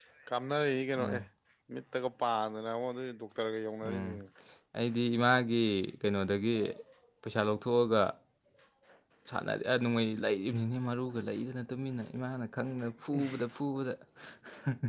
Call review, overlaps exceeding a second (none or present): none